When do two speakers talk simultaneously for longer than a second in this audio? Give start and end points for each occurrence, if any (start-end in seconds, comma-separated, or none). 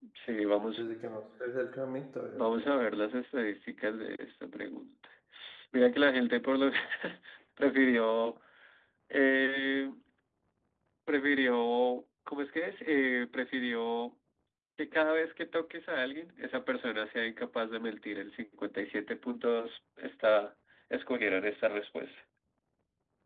none